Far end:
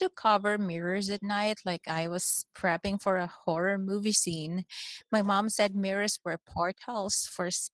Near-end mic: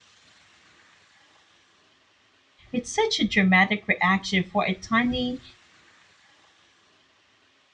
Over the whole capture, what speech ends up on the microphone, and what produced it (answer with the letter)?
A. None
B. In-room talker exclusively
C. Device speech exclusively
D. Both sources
B